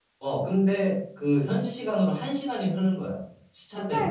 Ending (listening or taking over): taking over